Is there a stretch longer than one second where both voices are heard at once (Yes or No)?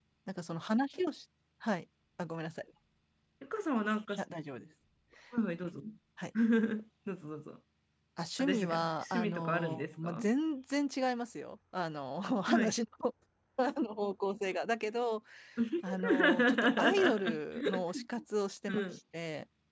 Yes